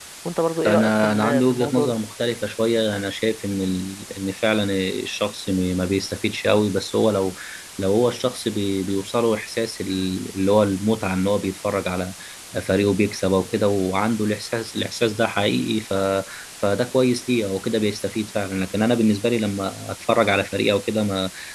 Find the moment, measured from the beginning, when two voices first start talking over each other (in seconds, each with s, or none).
0.7 s